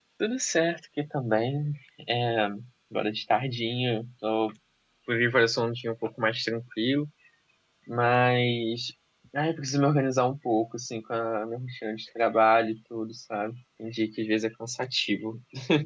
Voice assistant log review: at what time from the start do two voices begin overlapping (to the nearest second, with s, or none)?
none